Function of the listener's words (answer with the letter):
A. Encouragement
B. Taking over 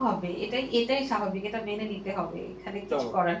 B